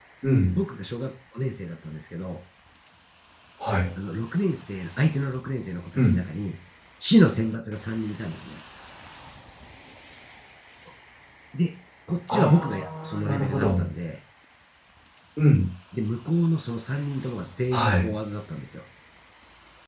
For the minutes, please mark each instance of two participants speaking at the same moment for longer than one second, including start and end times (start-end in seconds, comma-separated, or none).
12.3-13.8